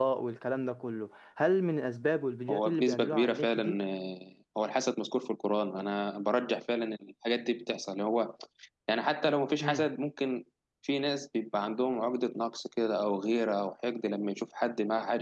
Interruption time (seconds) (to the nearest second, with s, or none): 2 s